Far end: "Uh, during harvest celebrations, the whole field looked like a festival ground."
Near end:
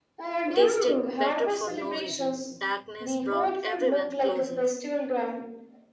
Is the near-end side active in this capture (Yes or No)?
Yes